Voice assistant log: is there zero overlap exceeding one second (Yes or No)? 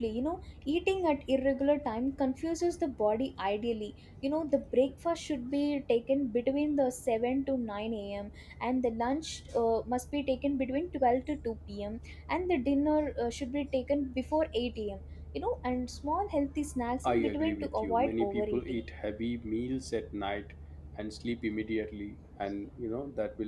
No